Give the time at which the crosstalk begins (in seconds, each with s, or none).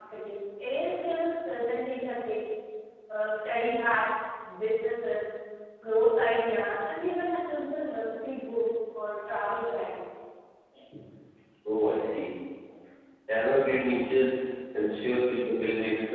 none